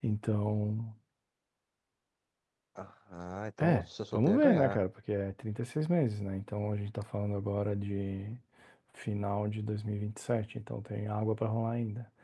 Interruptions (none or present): present